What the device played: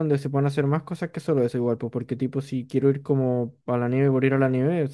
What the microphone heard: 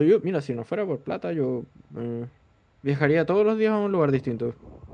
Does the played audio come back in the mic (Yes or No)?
No